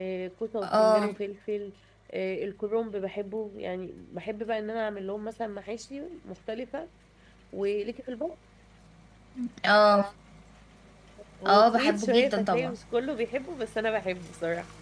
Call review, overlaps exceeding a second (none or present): present